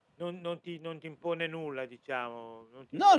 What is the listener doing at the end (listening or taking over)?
taking over